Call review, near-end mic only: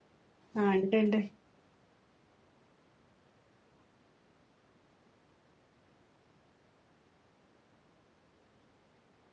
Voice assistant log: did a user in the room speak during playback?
Yes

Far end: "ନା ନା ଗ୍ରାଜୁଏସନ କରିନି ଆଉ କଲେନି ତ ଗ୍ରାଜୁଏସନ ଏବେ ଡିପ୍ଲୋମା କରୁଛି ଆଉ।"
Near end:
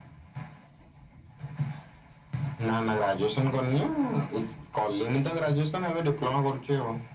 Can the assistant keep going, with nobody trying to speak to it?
Yes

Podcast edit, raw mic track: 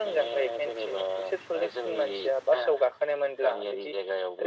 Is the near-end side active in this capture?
No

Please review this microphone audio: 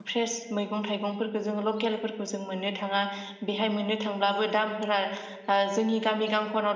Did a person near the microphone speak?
Yes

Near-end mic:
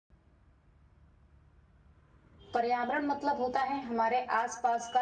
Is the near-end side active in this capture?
Yes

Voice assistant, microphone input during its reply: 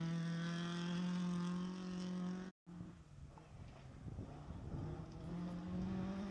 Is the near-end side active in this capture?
No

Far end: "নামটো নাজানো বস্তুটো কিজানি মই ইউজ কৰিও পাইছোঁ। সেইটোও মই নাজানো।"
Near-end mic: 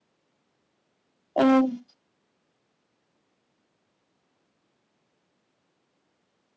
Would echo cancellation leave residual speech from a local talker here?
Yes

